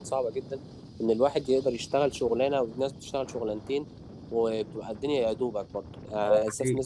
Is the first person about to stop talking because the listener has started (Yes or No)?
No